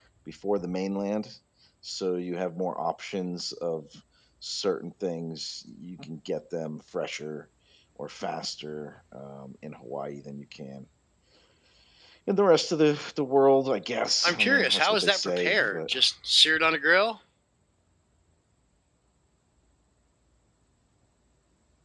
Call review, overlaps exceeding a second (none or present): present